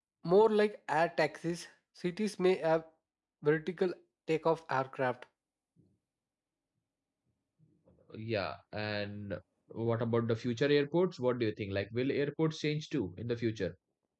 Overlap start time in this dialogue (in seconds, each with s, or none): none